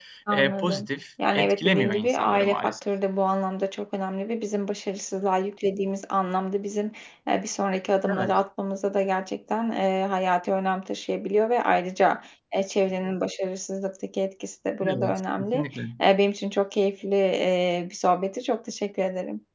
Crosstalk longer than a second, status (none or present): present